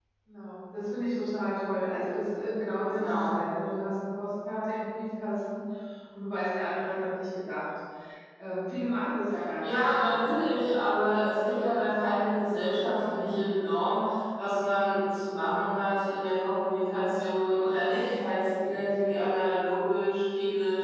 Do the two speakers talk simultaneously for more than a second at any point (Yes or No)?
Yes